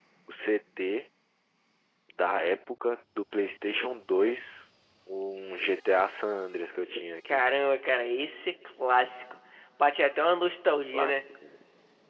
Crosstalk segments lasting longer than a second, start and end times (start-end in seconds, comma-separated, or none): none